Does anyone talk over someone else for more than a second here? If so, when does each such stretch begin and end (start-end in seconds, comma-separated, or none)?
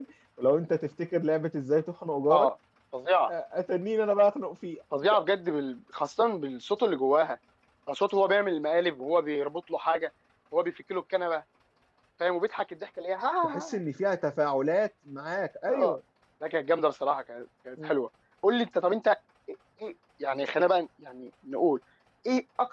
none